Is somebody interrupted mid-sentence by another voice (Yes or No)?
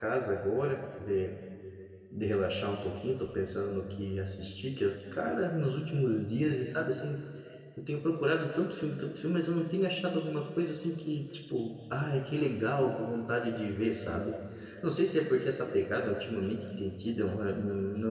No